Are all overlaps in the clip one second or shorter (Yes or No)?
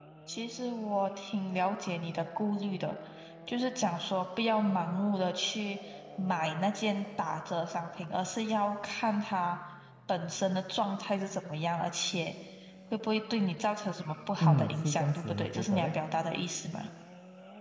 No